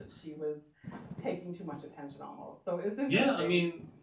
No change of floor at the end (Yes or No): No